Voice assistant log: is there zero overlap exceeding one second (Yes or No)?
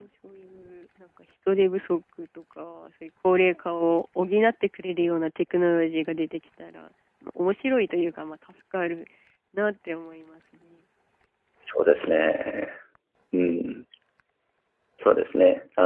Yes